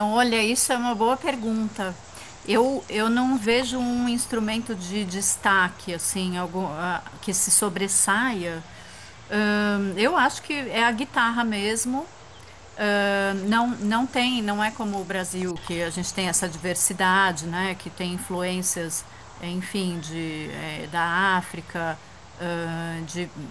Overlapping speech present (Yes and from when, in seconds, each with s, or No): No